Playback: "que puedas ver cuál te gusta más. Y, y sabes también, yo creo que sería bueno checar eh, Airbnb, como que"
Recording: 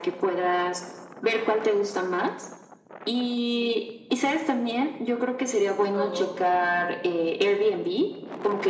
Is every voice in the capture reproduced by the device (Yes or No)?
No